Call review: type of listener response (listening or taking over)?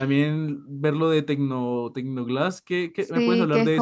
taking over